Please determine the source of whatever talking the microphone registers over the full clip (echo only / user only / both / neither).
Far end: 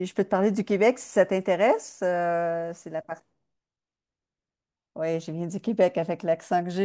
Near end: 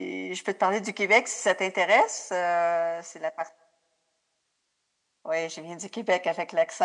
echo only